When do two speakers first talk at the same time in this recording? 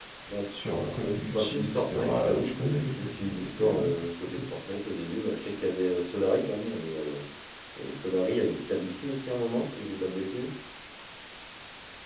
1.3 s

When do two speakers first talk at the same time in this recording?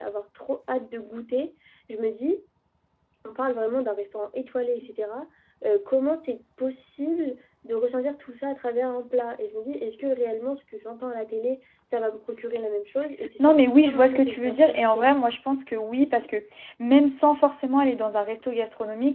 13.4 s

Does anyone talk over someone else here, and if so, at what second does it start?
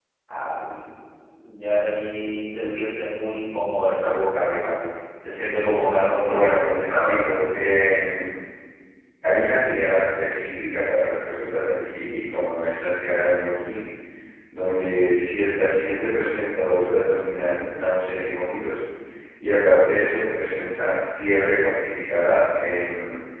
6.2 s

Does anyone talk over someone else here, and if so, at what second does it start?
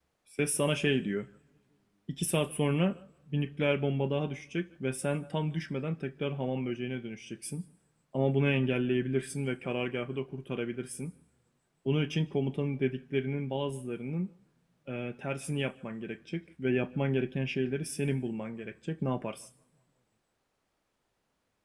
none

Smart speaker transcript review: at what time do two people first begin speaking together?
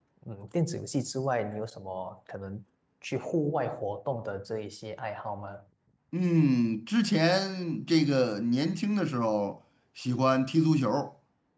none

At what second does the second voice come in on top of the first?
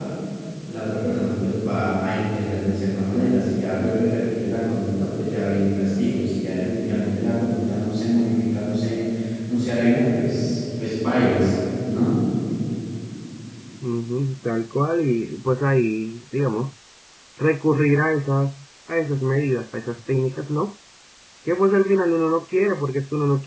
none

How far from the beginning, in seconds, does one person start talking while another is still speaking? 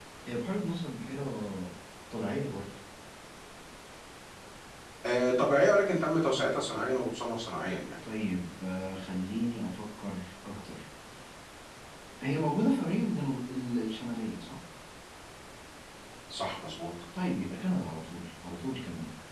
none

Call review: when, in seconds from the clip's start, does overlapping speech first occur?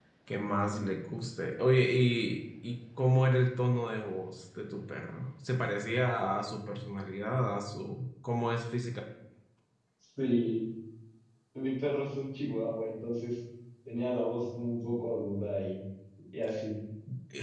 none

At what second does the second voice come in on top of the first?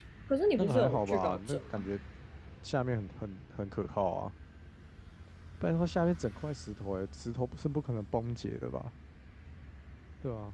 0.6 s

